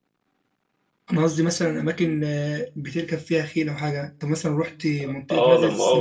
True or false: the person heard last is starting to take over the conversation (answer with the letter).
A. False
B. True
B